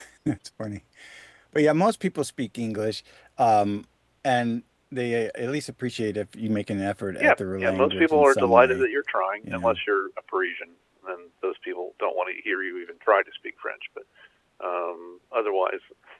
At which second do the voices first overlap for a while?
7.2 s

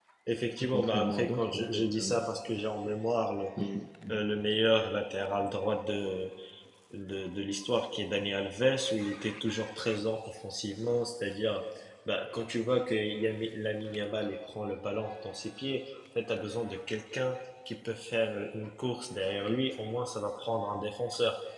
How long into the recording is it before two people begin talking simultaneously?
0.7 s

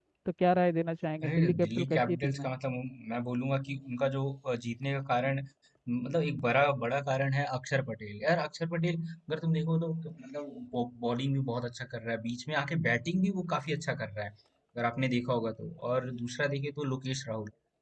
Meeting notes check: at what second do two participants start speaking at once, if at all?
1.2 s

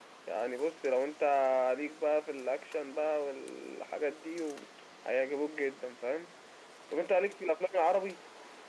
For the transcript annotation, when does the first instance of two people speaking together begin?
none

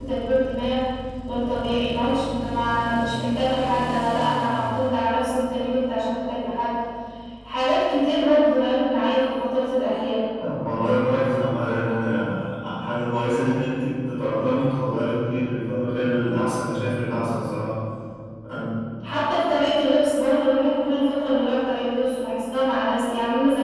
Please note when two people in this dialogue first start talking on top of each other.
none

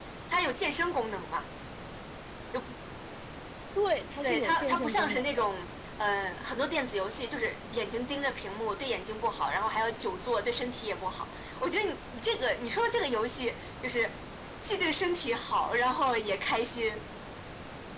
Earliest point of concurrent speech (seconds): 4.2 s

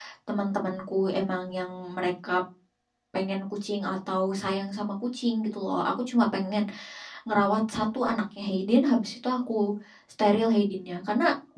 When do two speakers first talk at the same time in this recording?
none

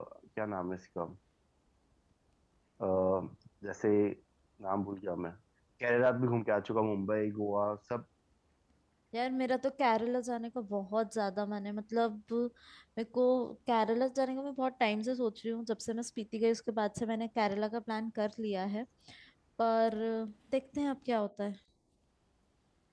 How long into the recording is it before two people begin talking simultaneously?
none

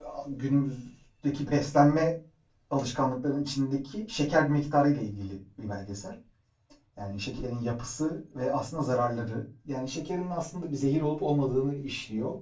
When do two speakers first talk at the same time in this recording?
none

